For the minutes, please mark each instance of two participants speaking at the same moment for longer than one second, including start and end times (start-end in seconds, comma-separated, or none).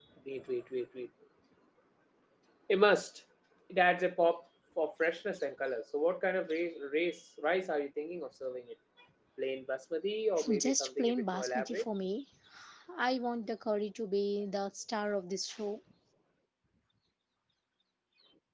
10.6-11.8